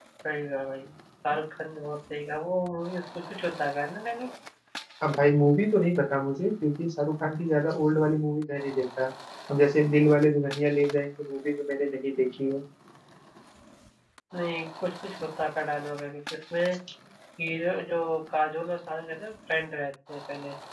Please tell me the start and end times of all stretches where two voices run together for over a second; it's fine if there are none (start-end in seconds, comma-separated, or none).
none